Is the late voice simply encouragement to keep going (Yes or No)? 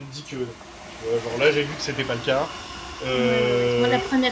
No